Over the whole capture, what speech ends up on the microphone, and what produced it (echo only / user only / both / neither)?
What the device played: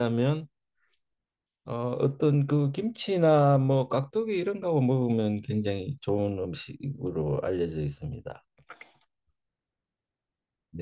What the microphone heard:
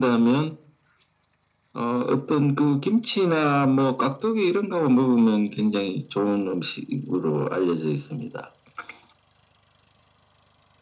echo only